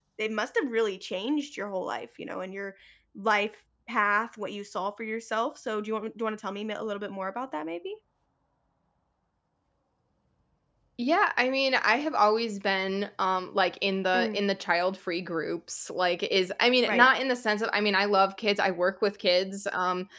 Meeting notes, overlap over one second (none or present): none